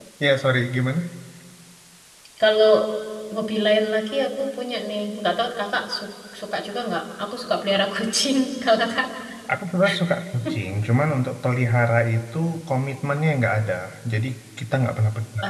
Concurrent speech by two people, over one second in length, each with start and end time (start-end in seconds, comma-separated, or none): none